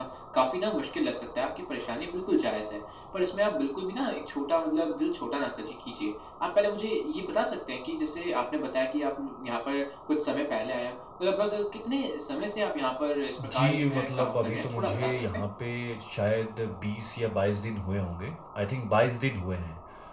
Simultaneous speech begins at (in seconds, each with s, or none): 13.4 s